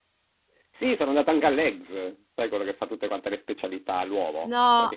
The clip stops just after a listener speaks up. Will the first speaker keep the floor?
Yes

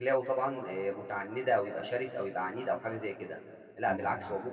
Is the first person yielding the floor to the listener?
No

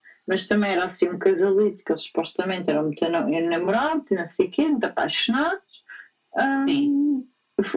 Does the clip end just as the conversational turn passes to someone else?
No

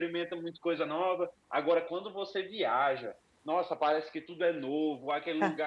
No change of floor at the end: Yes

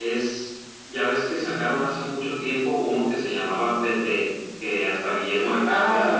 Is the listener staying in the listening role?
No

